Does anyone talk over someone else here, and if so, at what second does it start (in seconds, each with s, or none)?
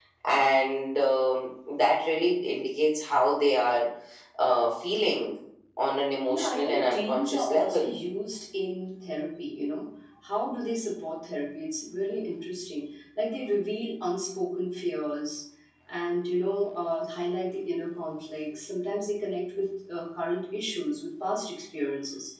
6.3 s